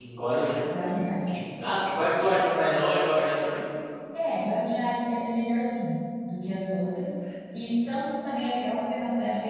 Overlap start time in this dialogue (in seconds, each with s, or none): none